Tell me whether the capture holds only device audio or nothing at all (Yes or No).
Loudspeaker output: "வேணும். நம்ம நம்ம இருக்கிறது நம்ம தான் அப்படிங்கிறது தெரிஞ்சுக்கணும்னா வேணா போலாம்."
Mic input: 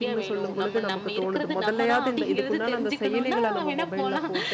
No